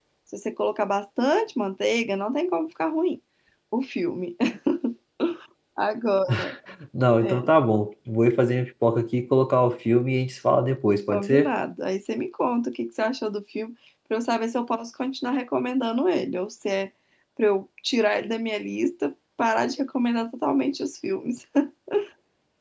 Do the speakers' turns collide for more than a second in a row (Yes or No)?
No